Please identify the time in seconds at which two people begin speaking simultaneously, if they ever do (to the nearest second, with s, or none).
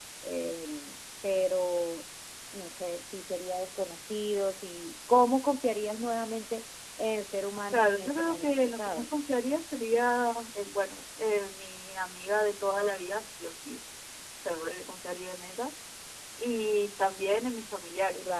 8 s